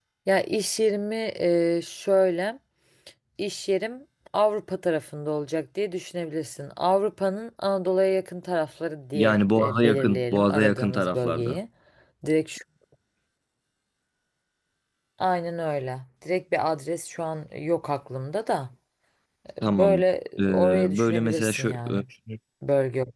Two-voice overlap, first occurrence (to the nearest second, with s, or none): 9 s